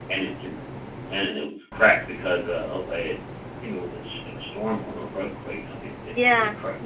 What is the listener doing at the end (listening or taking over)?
taking over